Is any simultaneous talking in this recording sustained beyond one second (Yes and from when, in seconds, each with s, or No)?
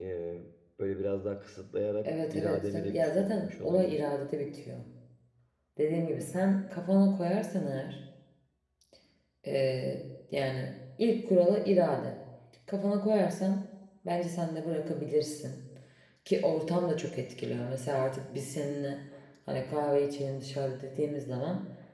Yes, from 2.0 s